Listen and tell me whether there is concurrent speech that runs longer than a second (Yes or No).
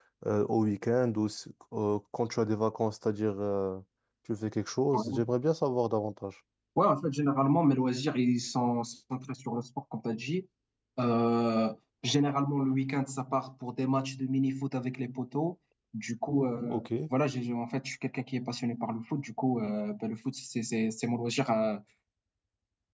No